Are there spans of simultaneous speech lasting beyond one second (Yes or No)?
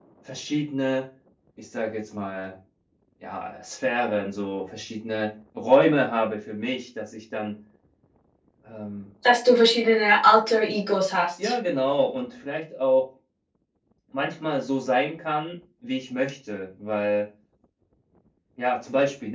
No